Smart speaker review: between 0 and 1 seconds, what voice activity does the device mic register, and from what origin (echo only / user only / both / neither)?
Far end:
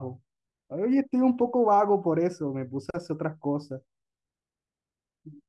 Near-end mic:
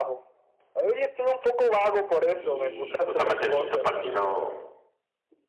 echo only